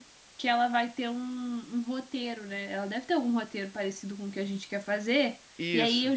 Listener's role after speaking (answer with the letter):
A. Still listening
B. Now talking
A